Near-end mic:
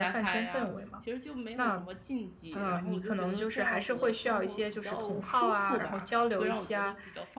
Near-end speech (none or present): present